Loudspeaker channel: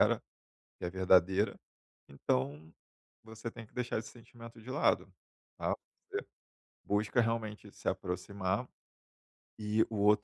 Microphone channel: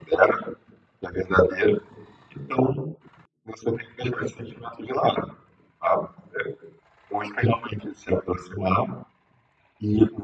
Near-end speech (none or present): none